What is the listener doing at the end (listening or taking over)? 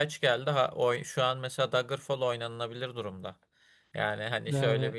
listening